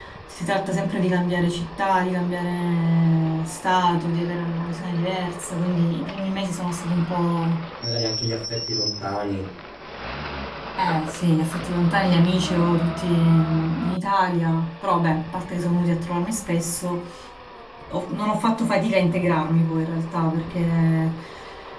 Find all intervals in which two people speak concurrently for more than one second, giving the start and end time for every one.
none

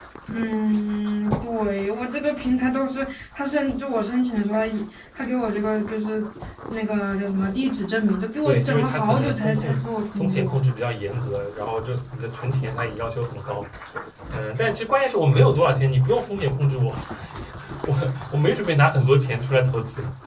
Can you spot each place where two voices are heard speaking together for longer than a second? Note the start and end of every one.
8.4-9.8

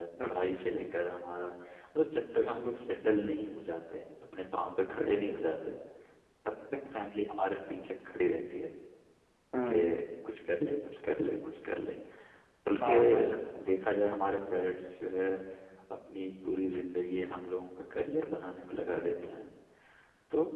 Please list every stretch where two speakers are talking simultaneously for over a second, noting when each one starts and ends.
none

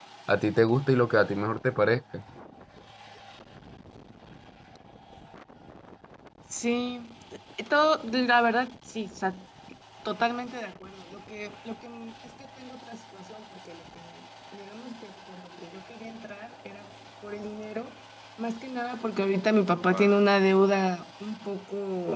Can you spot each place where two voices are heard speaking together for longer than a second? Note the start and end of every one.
none

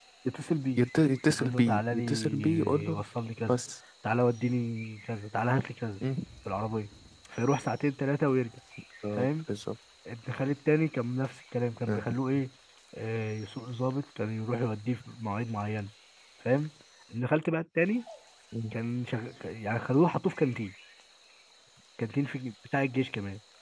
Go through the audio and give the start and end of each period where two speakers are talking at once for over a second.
1.4-3.0

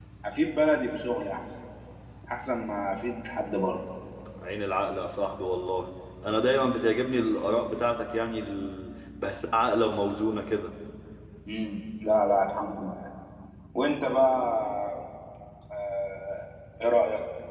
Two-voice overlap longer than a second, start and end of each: none

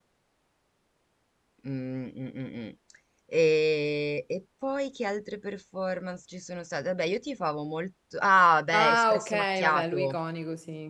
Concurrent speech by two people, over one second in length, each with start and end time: 8.7-10.2

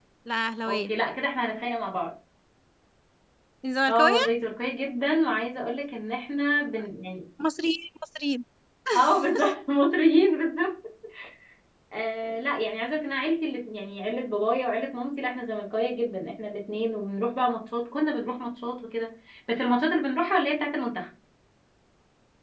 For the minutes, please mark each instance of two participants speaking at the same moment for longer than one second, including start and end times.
none

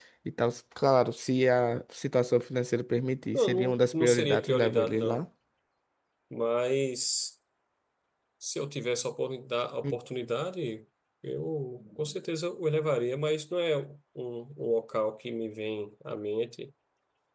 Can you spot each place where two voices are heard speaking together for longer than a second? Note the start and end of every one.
3.3-5.2

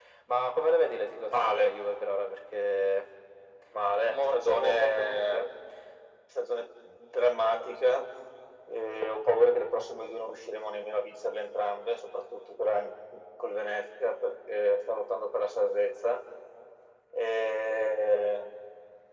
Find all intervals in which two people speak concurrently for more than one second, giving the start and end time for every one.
4.0-5.5

